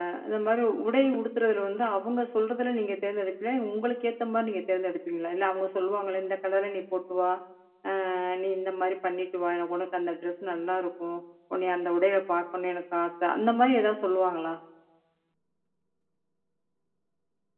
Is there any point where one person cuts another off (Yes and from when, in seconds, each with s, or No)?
No